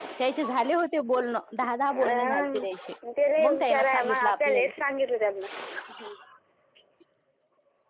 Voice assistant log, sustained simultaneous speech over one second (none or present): present